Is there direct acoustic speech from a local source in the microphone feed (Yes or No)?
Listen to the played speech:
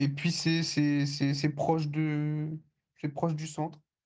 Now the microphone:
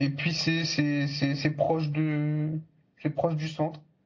No